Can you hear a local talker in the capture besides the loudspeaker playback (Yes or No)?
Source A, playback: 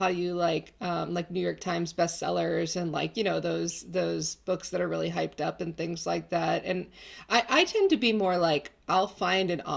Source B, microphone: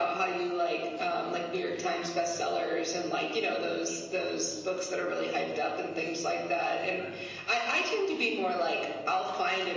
No